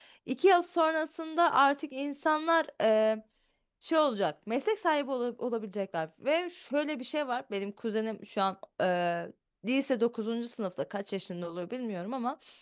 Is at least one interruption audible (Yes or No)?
No